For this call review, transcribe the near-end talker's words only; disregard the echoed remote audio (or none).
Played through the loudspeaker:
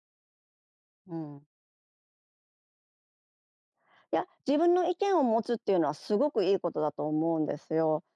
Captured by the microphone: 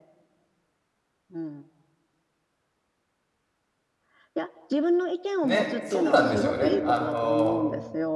ね、そうなんですよね。あの、